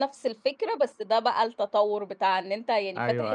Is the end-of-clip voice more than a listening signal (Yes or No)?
No